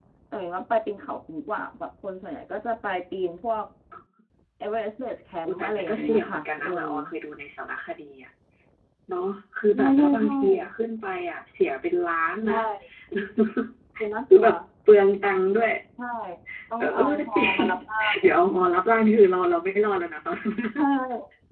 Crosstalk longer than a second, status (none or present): present